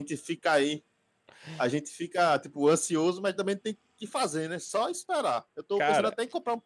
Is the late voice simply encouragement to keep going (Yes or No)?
Yes